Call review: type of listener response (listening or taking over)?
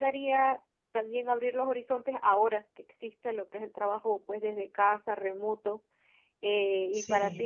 listening